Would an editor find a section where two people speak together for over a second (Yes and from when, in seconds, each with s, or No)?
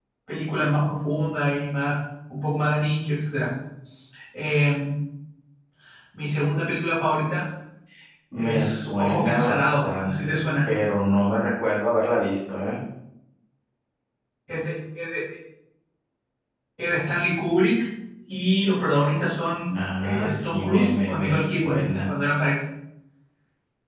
Yes, from 8.3 s